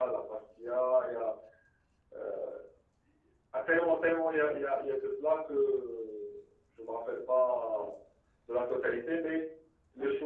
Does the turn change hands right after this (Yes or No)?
No